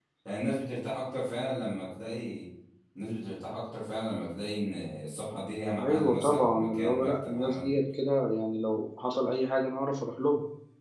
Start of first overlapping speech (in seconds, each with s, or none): 5.8 s